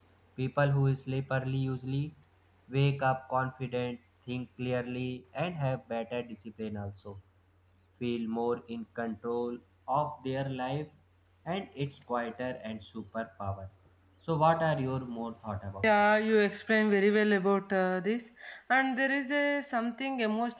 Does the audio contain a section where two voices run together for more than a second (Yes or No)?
No